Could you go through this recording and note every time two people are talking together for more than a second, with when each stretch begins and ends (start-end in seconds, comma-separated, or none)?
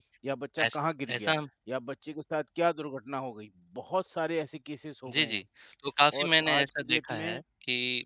6.1-7.4